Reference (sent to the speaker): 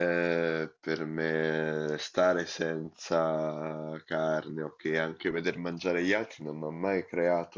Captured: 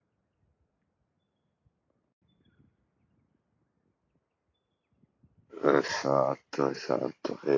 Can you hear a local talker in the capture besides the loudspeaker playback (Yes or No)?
Yes